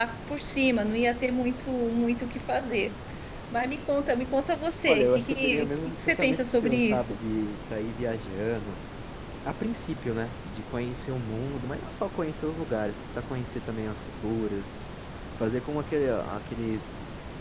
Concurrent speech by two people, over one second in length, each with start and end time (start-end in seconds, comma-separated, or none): 4.8-7.2